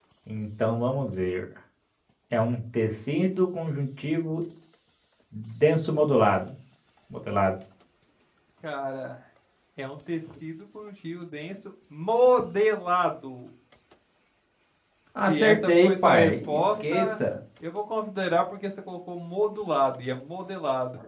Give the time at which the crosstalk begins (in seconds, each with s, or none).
15.3 s